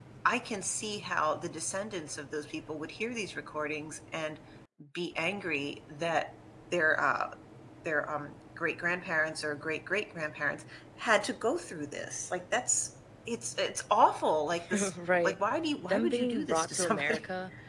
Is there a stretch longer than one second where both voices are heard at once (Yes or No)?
Yes